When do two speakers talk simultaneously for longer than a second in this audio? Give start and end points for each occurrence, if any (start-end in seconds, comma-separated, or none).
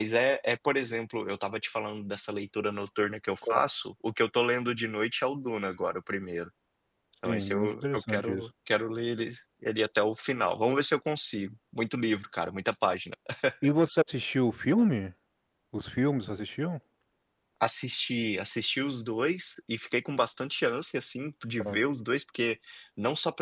7.2-8.5